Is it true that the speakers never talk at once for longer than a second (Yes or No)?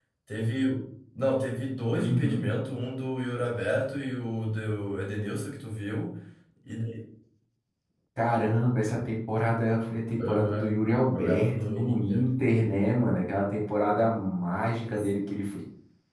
No